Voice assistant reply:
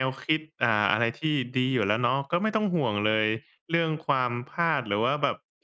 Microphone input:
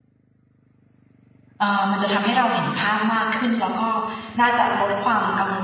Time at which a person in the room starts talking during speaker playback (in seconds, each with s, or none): 1.6 s